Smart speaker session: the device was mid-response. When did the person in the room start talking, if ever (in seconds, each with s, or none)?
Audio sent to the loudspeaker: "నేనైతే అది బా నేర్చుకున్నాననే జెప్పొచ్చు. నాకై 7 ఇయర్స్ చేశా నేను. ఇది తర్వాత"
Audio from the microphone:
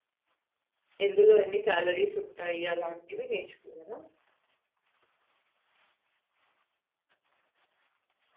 1.1 s